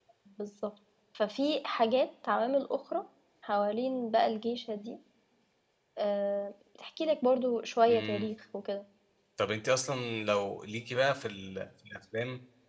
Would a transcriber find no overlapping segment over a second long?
Yes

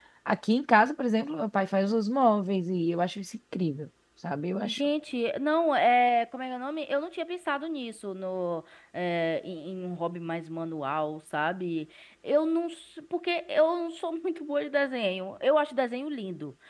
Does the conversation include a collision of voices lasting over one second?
No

